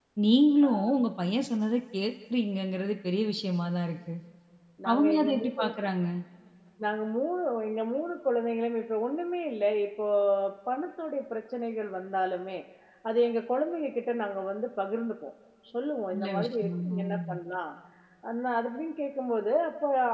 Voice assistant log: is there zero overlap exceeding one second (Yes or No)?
No